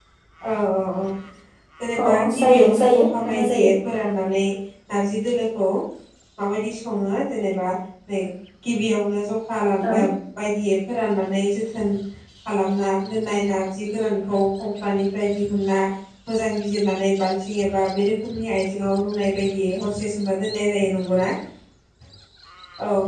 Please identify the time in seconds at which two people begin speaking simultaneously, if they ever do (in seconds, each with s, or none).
2.0 s